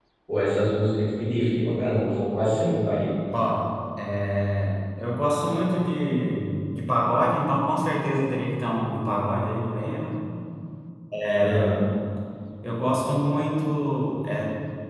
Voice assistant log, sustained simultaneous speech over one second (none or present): none